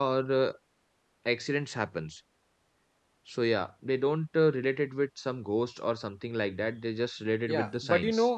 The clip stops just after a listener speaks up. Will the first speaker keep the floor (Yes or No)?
No